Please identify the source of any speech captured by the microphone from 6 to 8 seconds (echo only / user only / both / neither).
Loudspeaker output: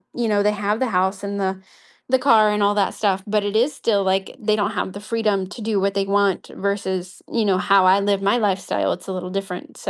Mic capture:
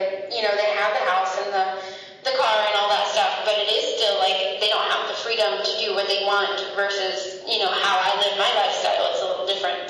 echo only